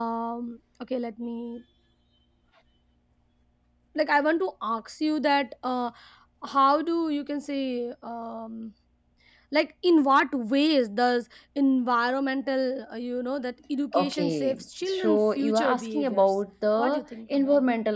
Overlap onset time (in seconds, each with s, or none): 13.9 s